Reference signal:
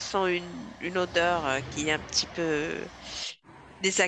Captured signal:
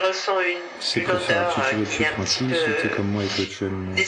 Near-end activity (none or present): present